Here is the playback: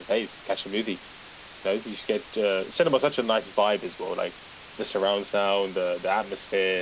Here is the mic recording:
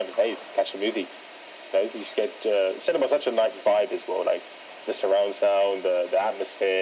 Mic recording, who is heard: echo only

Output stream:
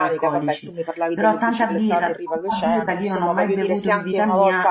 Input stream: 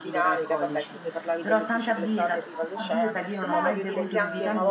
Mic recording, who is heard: both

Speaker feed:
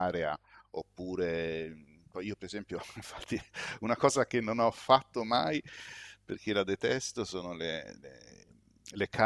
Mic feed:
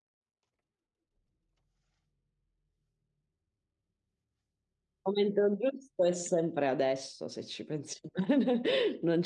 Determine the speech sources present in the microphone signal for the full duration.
user only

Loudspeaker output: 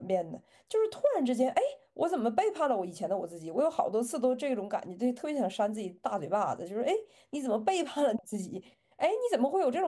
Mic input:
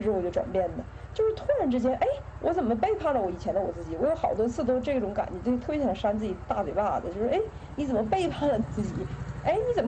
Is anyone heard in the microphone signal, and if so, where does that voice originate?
echo only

